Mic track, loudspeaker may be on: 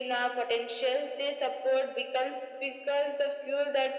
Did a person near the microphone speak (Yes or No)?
No